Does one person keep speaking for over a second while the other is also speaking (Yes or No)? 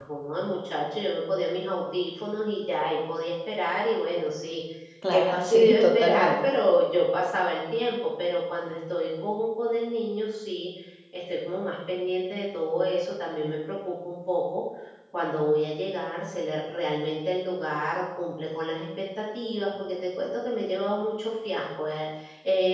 Yes